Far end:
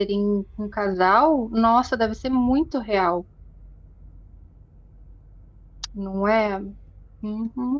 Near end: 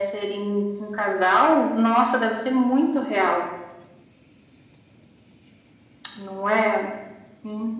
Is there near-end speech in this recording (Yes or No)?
No